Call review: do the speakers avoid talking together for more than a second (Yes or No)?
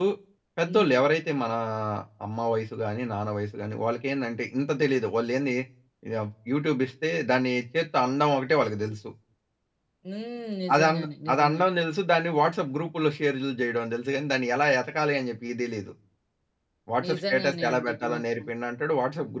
No